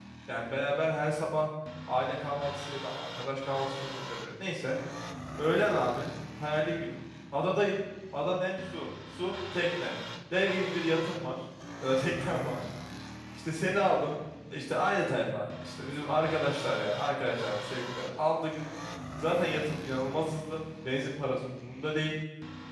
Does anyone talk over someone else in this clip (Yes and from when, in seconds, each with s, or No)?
No